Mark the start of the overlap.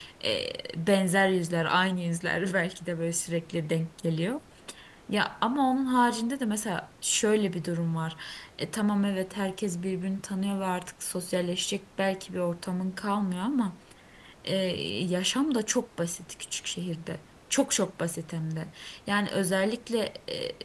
none

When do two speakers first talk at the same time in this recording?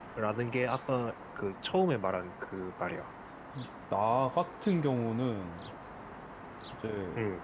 none

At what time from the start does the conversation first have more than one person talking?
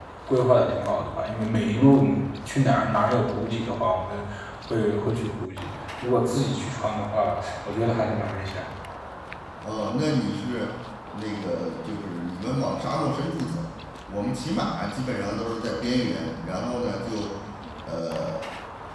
none

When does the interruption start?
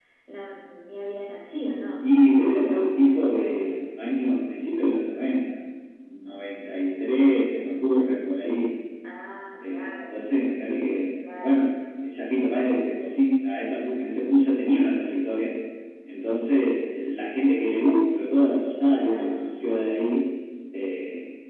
2.0 s

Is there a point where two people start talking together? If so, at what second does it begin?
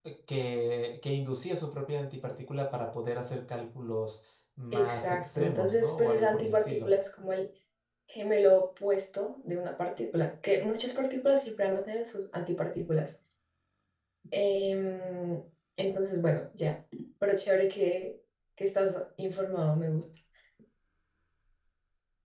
4.7 s

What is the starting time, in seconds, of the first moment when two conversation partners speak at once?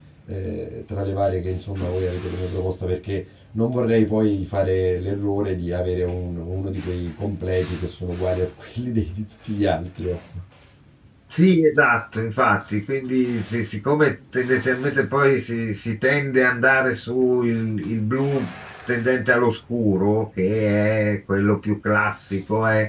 none

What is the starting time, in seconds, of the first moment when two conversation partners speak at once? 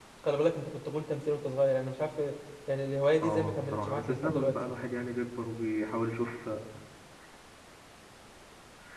3.2 s

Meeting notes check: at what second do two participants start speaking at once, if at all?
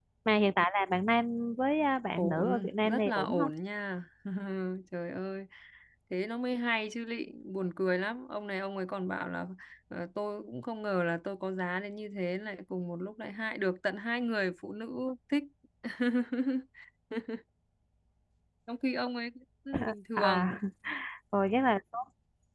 2.2 s

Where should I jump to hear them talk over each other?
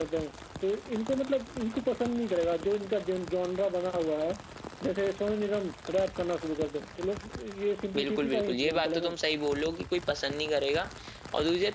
8.0 s

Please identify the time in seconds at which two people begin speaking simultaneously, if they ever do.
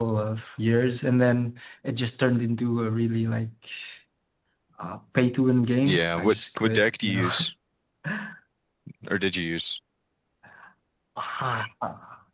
5.8 s

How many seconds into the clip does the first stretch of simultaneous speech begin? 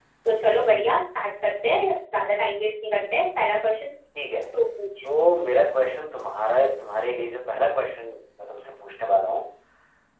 none

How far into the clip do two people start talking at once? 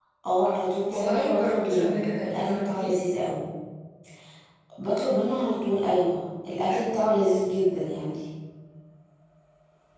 0.9 s

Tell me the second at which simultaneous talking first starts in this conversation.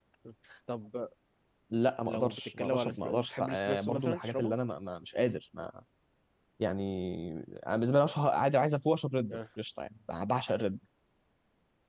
2.1 s

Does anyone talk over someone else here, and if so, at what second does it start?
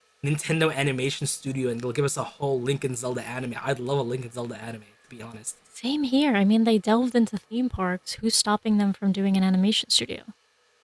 none

